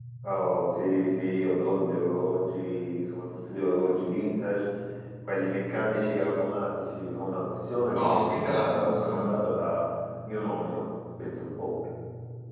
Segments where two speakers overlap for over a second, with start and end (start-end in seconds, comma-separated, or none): 7.9-9.4